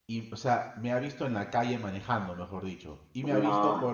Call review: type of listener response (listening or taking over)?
listening